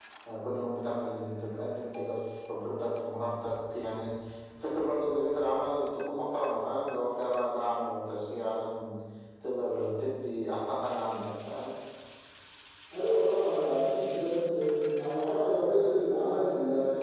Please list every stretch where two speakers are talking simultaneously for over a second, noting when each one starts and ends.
none

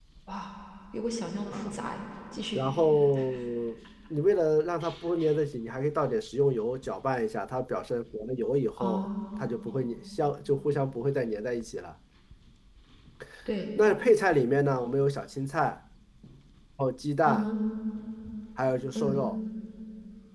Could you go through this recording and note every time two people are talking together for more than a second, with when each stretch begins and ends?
none

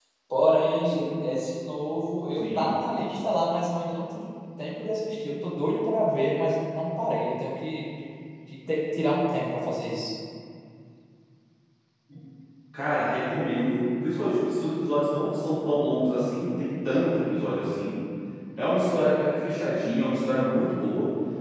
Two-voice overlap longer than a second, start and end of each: none

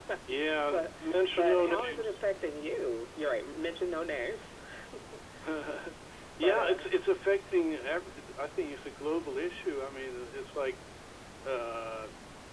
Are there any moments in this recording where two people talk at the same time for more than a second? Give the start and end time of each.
0.7-2.2

